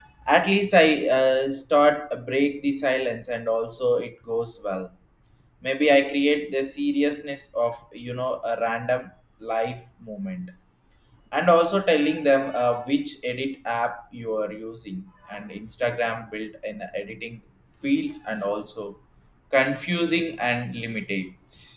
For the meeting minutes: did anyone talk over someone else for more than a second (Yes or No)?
No